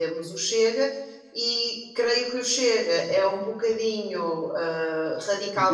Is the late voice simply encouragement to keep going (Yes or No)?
No